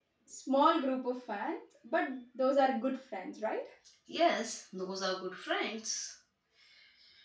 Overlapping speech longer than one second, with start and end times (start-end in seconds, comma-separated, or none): none